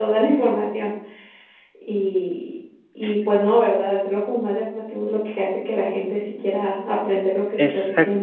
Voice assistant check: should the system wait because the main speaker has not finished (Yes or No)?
No